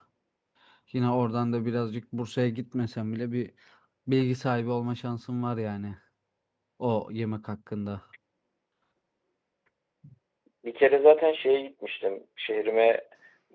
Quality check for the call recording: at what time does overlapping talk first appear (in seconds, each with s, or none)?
none